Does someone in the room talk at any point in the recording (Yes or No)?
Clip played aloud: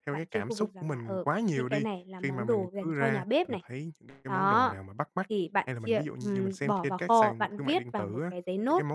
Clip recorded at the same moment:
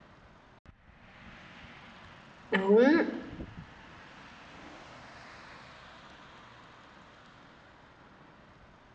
Yes